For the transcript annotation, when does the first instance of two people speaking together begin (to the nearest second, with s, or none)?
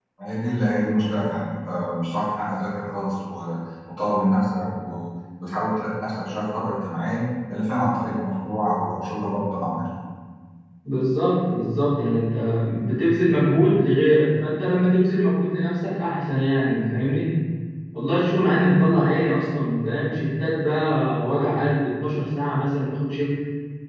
none